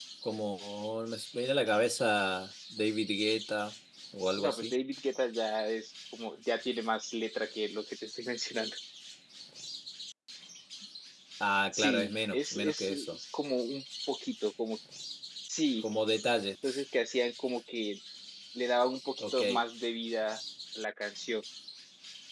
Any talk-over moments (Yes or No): Yes